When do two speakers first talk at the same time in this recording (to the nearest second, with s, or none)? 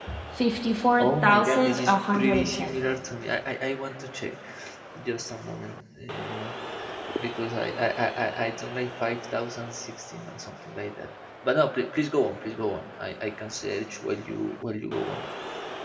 1 s